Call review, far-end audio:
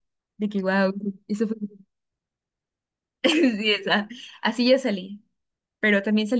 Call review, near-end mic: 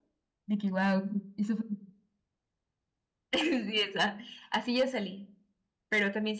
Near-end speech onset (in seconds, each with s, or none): none